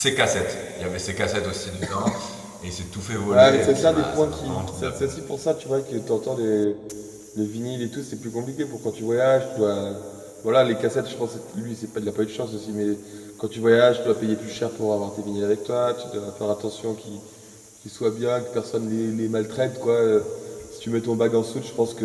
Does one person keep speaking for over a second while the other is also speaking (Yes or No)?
Yes